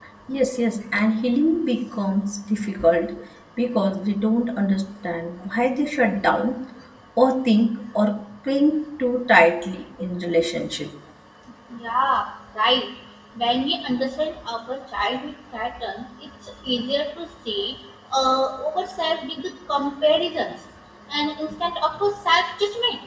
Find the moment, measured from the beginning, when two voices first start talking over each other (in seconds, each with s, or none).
none